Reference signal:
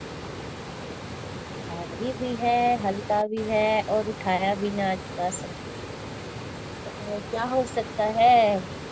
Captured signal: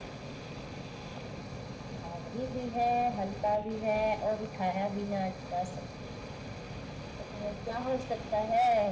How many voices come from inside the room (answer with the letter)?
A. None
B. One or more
A